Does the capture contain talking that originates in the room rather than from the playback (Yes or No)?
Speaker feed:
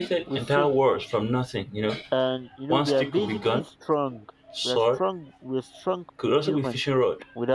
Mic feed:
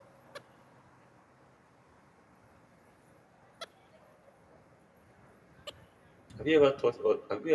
Yes